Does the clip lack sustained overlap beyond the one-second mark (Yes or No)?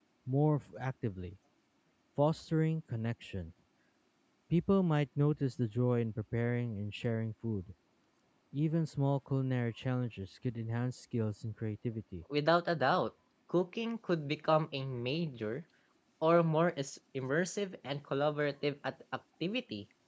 Yes